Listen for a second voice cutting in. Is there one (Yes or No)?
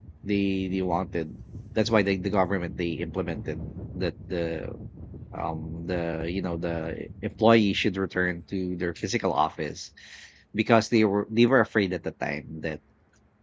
No